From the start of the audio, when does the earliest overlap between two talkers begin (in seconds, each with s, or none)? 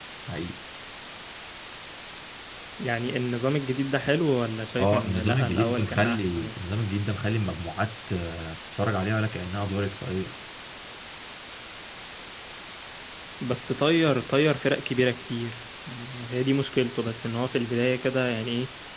4.8 s